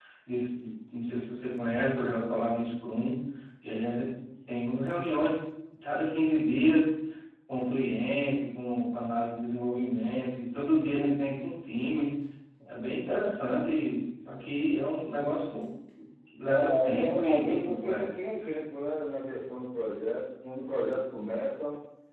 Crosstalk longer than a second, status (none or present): present